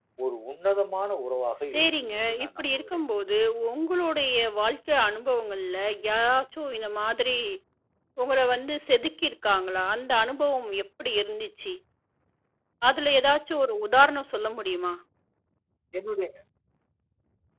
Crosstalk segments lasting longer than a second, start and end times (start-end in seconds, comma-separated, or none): 1.6-3.0